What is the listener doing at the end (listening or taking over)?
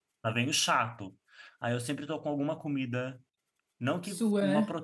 listening